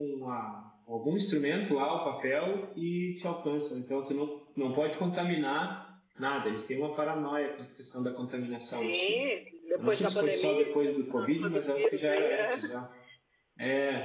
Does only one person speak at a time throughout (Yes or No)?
No